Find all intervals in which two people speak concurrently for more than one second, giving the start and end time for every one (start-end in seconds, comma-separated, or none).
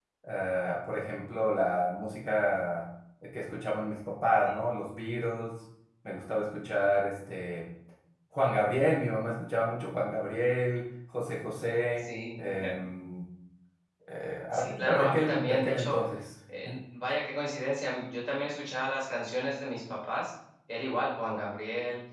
14.5-15.9